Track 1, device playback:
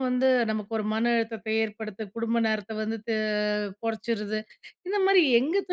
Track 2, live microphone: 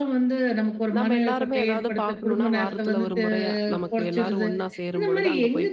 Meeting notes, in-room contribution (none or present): present